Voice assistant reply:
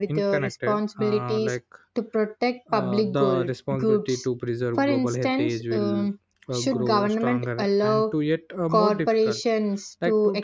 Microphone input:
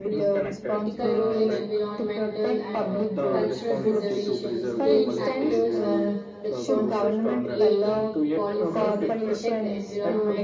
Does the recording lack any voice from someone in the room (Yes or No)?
No